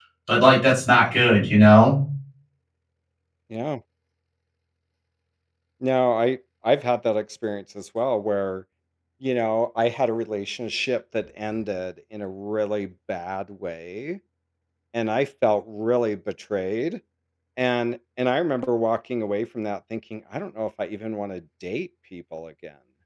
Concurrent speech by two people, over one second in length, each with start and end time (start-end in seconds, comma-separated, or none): none